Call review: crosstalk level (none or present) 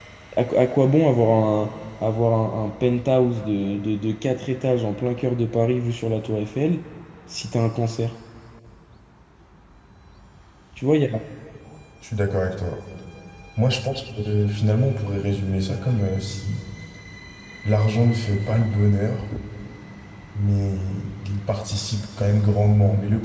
none